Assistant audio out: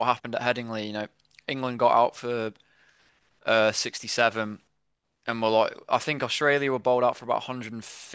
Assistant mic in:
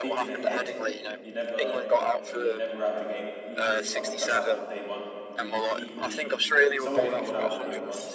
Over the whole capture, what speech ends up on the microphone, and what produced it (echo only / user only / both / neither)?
both